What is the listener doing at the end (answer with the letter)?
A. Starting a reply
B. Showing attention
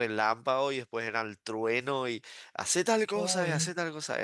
B